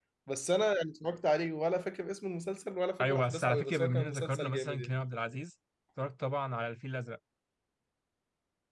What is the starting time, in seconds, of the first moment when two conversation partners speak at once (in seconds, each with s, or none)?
3.0 s